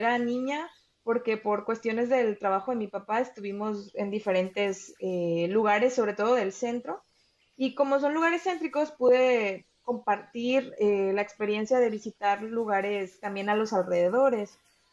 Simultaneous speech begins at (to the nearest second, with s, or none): none